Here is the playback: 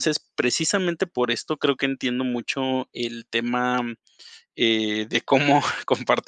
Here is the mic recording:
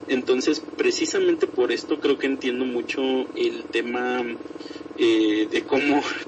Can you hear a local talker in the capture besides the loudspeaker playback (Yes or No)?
No